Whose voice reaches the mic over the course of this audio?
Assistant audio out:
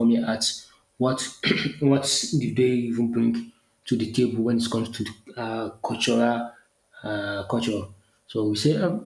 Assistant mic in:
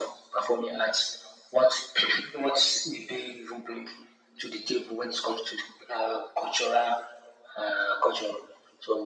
echo only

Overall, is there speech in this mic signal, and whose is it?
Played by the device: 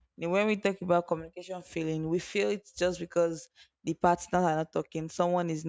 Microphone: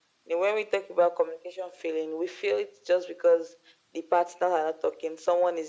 echo only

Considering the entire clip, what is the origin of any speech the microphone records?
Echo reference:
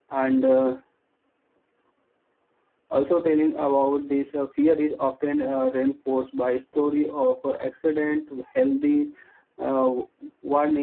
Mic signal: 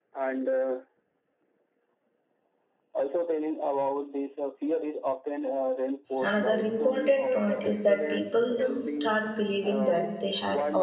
both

